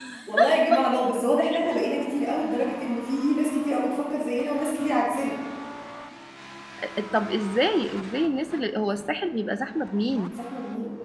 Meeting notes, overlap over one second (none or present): none